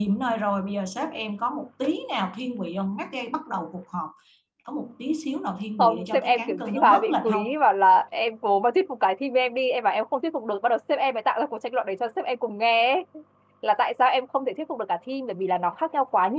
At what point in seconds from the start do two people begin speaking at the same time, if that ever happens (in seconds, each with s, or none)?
5.8 s